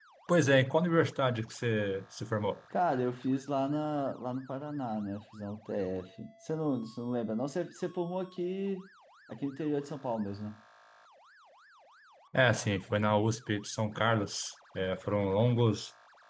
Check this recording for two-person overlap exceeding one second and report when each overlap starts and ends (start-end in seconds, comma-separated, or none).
none